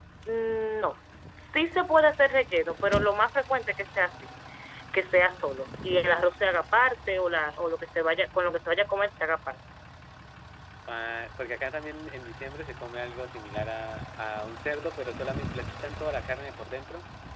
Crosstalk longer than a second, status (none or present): none